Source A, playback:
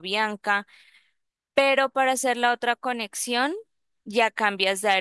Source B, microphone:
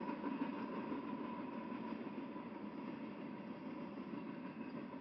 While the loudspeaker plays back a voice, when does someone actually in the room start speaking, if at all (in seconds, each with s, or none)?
none